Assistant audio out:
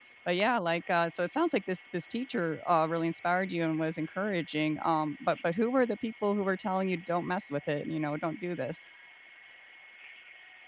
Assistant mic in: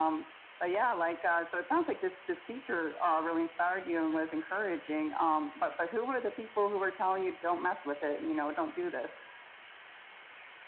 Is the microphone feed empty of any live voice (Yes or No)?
Yes